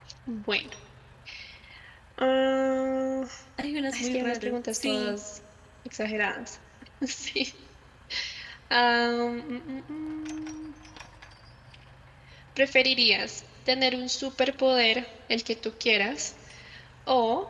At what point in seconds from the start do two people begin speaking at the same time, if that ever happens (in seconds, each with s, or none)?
3.9 s